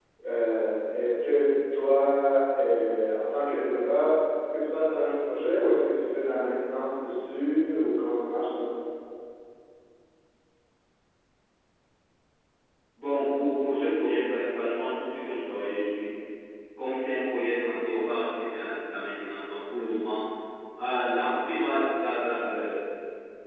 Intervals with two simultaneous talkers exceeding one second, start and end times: none

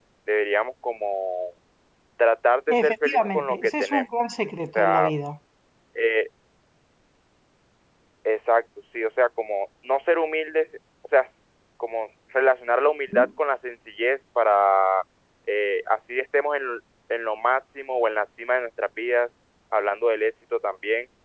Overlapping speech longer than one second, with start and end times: 2.8-4.0

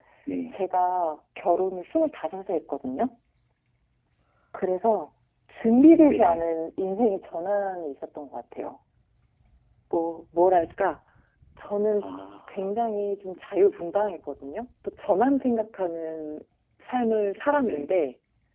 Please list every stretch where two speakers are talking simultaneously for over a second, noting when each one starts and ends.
none

